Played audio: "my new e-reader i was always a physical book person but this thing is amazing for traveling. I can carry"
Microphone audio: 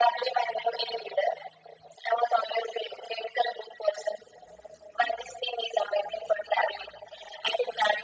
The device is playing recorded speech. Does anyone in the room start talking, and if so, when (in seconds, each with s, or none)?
none